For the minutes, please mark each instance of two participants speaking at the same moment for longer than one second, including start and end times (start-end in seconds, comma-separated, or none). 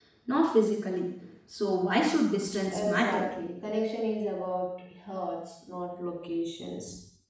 none